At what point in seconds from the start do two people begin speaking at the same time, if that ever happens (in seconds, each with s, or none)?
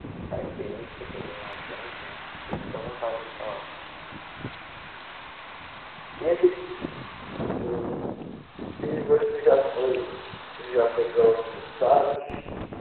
none